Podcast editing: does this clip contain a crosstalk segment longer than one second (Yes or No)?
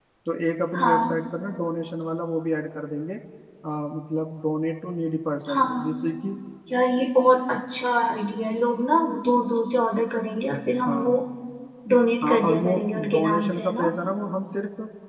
Yes